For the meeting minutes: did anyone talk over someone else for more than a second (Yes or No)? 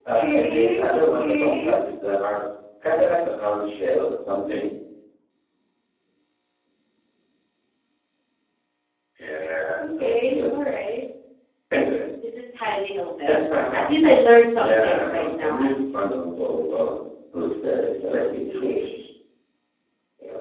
Yes